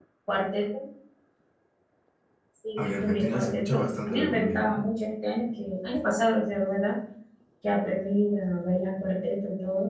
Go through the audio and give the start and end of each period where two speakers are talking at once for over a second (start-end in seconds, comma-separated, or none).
2.8-4.9